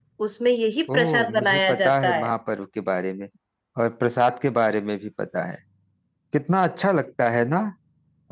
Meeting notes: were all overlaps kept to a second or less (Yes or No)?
No